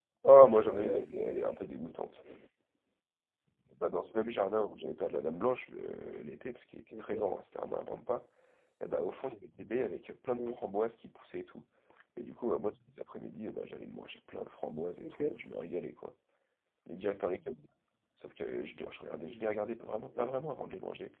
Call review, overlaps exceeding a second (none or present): present